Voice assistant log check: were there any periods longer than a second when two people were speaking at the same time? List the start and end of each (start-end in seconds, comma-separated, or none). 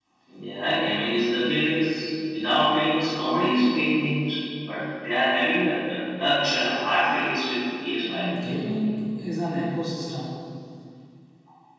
none